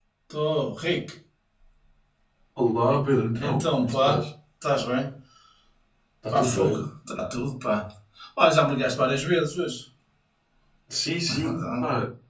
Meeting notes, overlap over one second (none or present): present